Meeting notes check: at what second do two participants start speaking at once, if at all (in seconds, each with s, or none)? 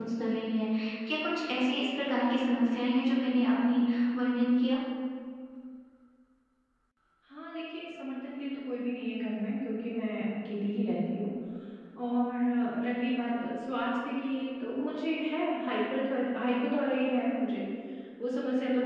none